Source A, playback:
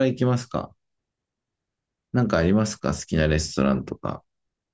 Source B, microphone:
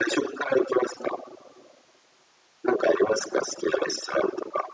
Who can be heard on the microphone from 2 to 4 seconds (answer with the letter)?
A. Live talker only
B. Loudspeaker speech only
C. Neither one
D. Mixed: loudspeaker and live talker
B